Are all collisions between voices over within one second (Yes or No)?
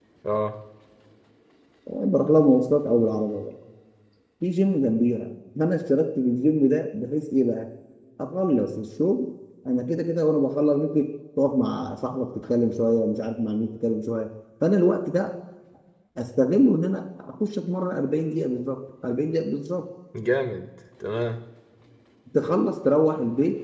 Yes